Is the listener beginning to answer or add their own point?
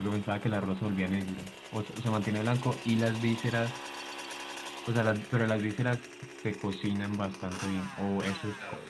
Yes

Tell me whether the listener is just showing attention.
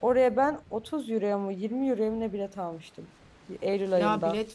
No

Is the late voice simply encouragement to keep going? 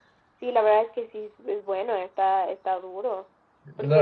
No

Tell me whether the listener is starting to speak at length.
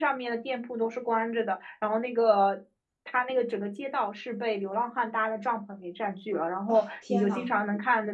No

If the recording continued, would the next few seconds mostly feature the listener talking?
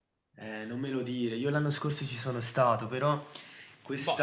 No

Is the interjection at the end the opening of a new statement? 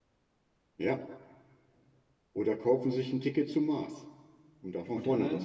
Yes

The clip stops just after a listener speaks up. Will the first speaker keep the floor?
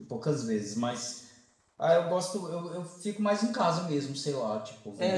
No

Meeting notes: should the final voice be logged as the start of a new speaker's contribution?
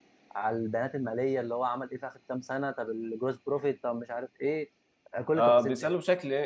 Yes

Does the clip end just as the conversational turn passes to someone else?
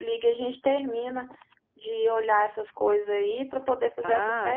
Yes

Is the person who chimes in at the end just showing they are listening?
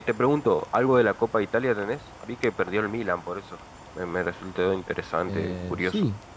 No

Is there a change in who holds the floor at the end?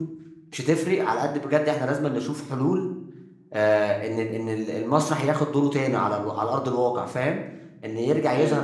No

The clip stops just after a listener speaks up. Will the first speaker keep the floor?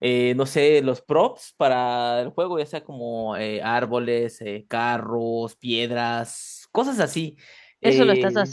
No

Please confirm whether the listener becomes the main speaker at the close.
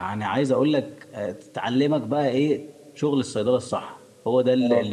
No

